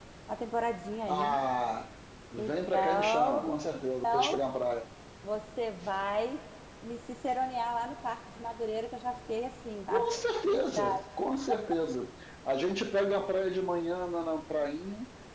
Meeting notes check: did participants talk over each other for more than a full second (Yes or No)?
Yes